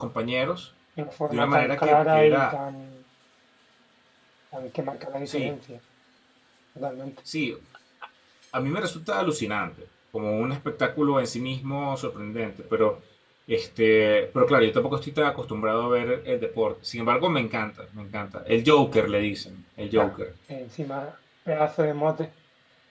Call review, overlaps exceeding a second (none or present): present